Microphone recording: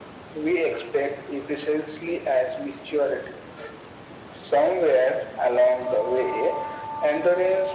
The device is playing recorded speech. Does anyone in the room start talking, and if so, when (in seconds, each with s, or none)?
none